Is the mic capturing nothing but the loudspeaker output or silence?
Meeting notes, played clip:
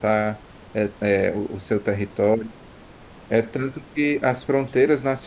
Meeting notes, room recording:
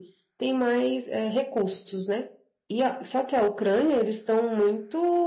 No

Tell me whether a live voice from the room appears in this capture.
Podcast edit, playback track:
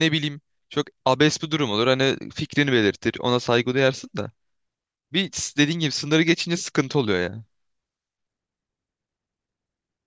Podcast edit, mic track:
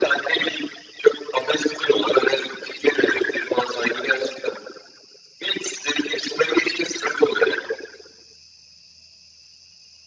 No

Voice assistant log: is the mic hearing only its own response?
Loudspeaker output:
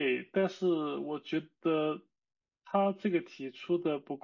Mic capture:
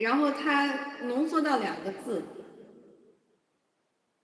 No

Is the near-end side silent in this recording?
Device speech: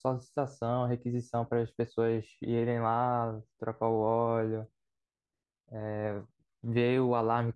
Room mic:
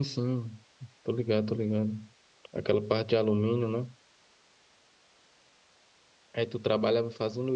No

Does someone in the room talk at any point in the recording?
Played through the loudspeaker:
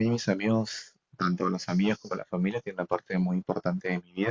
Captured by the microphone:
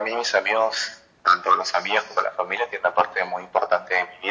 No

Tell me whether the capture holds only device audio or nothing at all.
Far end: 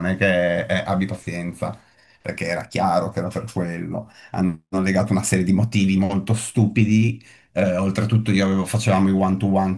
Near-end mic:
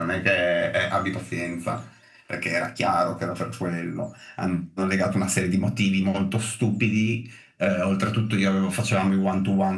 Yes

